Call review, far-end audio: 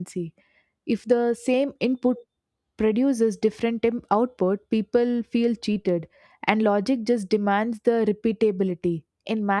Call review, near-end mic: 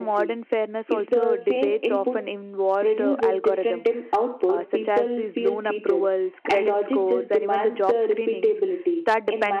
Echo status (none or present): present